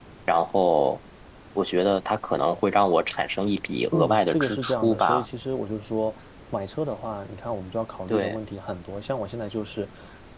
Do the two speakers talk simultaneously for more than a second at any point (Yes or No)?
Yes